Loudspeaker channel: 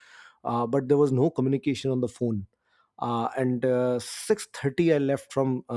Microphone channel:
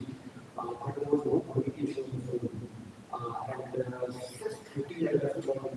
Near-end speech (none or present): none